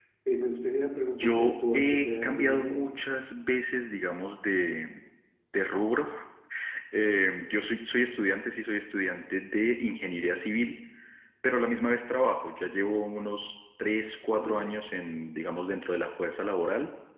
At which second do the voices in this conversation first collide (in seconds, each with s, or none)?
1.2 s